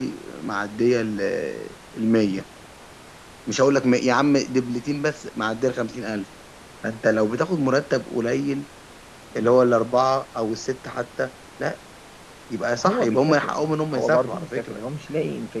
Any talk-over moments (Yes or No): Yes